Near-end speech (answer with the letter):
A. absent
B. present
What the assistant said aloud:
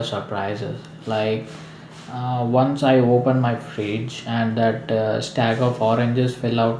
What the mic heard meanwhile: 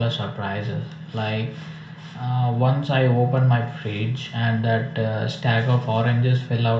A